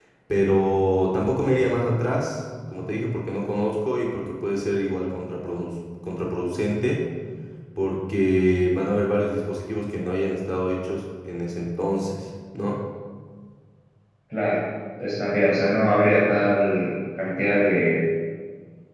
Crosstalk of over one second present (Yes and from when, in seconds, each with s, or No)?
No